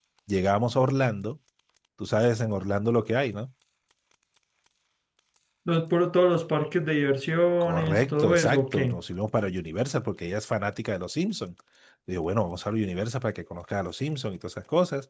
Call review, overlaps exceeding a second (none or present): present